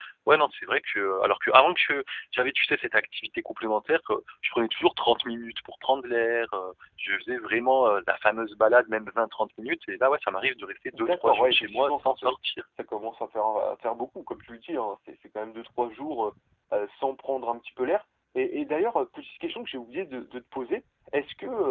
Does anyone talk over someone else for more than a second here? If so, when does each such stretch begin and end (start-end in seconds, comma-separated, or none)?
10.9-12.3